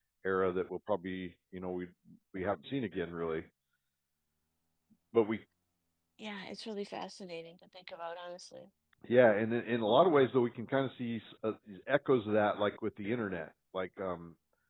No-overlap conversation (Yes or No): Yes